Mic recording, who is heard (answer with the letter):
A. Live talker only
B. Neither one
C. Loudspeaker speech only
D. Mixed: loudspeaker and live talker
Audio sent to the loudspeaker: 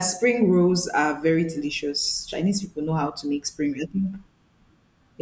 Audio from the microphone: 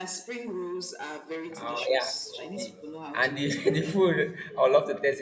D